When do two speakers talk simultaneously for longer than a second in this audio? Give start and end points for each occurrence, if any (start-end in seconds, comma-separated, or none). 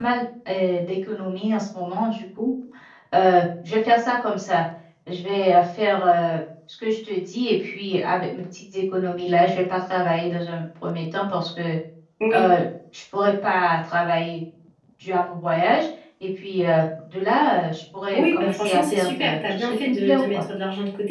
18.1-20.4